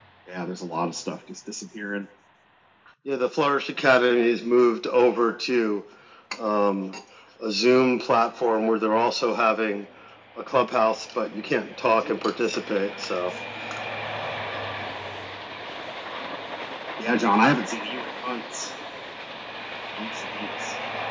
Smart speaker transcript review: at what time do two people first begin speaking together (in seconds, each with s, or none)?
none